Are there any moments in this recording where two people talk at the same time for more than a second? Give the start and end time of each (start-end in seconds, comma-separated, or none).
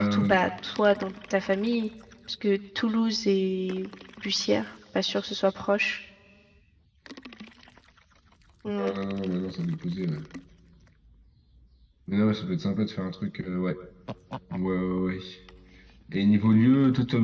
none